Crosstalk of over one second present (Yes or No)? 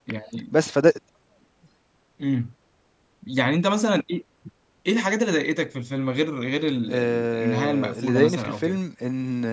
Yes